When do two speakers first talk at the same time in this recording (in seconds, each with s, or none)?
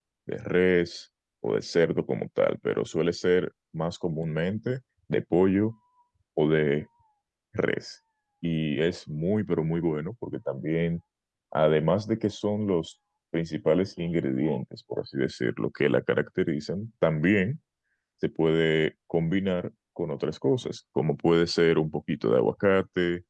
none